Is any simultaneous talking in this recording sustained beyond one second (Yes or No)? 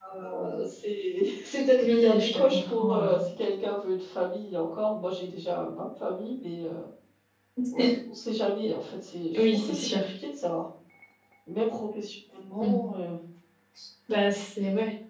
Yes